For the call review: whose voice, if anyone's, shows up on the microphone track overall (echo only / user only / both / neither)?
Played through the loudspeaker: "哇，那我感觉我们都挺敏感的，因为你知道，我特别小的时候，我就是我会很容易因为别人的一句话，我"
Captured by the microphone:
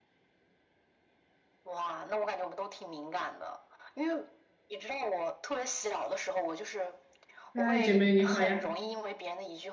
both